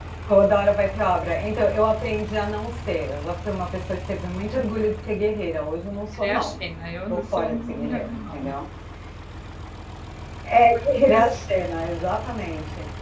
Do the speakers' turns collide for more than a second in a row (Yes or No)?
Yes